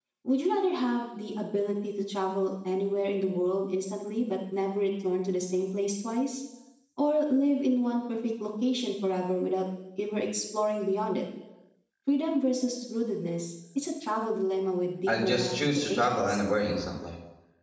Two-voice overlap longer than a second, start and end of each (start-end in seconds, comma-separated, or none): 15.1-16.4